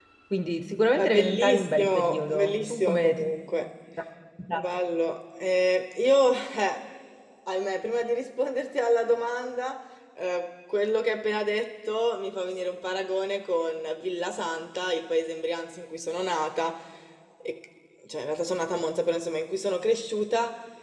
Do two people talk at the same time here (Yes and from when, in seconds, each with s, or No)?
Yes, from 1.0 s